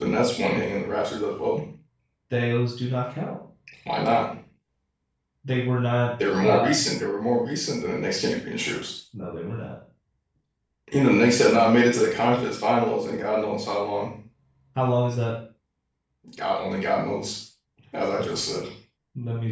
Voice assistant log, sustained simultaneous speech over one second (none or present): none